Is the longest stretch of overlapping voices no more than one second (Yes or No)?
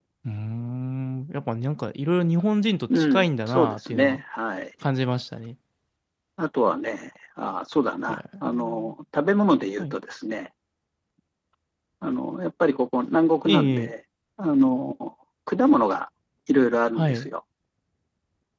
No